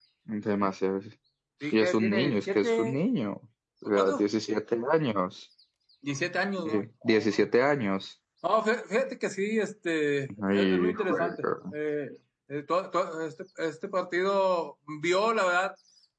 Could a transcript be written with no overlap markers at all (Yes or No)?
No